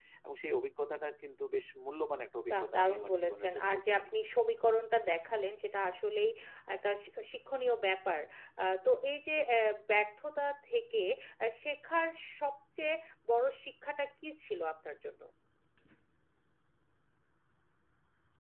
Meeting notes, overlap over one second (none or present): present